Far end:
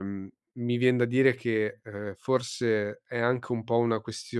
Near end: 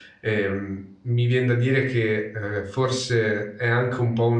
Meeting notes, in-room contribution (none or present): none